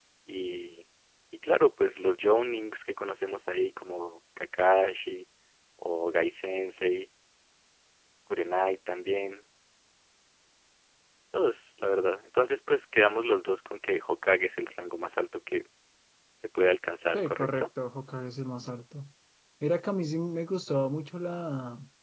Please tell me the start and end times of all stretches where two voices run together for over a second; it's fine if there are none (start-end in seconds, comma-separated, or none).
none